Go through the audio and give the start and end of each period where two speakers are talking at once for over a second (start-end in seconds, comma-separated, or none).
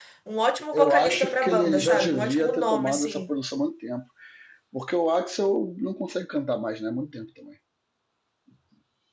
0.7-3.2